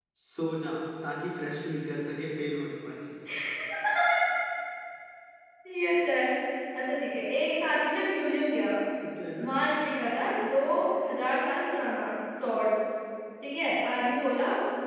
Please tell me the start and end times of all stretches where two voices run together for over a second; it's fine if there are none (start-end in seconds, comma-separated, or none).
none